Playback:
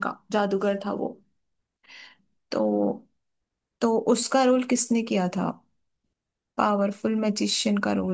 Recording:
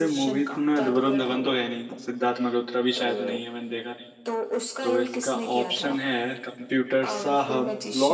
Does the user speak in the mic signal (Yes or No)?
Yes